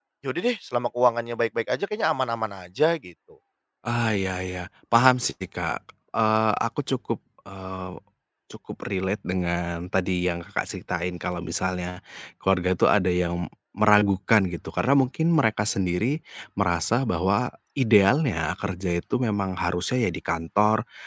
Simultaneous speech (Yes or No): No